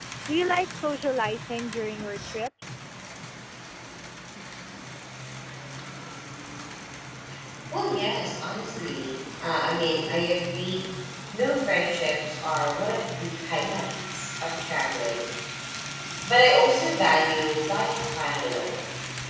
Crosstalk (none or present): none